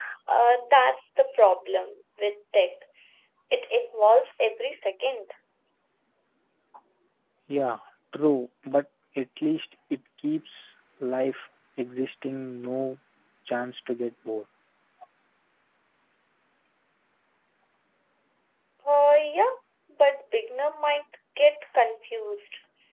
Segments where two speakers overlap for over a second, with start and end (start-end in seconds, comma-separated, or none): none